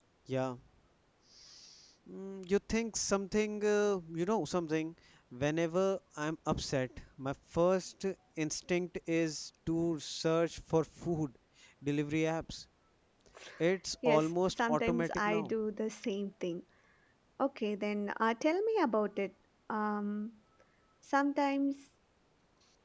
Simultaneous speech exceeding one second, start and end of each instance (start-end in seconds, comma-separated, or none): 14.0-15.5